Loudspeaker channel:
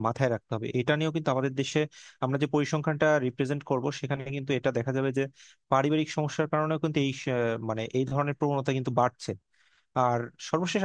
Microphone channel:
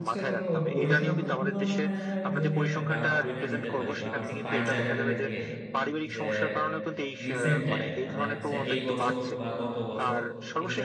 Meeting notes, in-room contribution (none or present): present